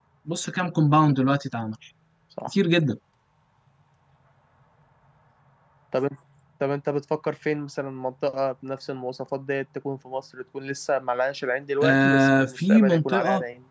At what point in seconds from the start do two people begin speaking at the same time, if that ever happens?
11.8 s

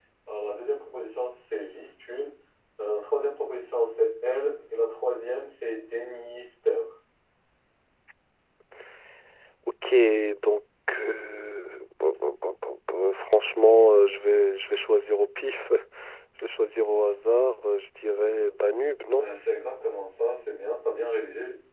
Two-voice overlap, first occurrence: none

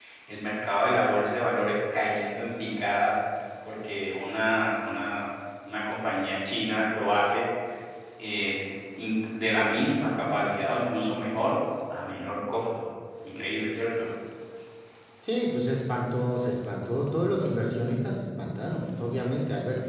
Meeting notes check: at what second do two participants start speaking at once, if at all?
none

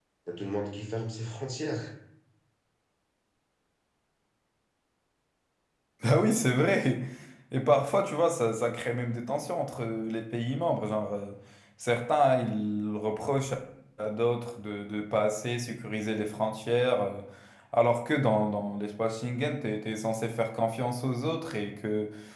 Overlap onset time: none

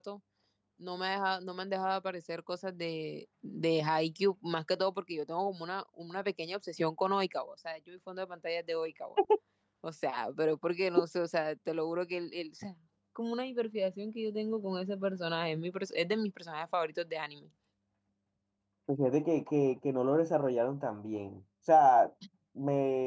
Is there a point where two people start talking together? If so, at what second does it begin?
none

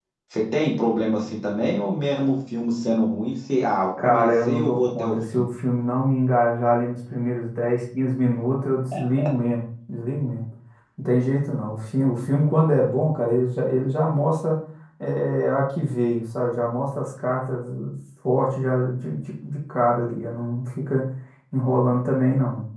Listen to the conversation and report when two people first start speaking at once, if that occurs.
4.0 s

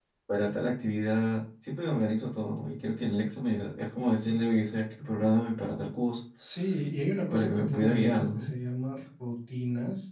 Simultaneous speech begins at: 7.3 s

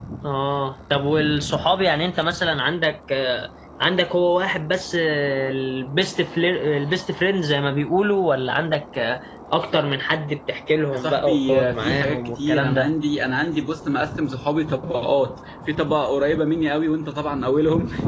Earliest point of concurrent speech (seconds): 10.9 s

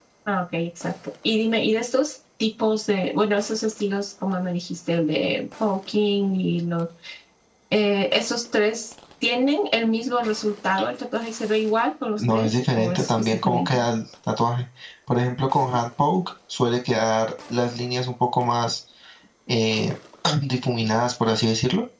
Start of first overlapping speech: 12.2 s

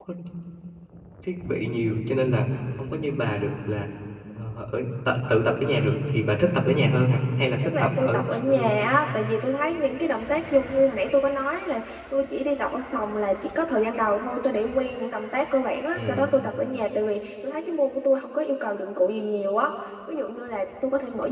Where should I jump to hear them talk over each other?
7.6 s

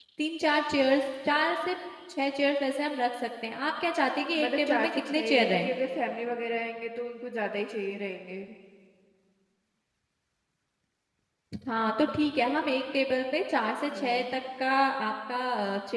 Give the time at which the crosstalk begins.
4.4 s

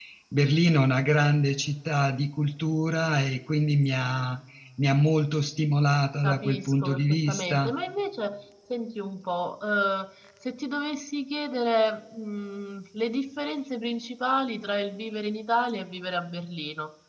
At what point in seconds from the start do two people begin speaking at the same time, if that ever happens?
6.2 s

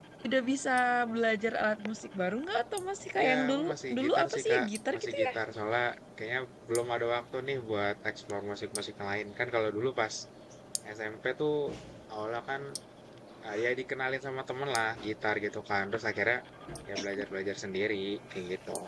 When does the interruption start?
3.2 s

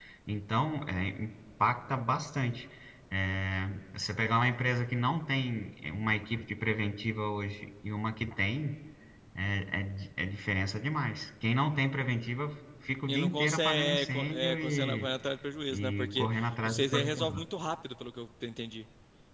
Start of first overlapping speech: 13.1 s

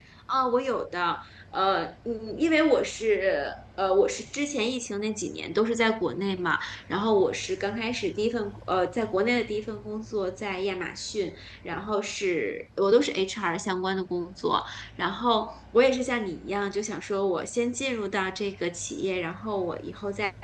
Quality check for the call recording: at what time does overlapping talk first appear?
none

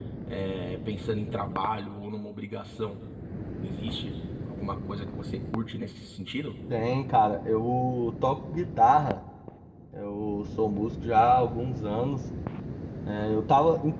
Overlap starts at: none

